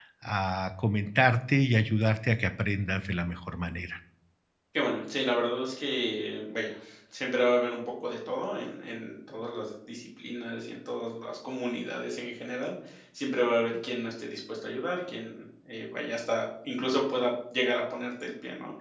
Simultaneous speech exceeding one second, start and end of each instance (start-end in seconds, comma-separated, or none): none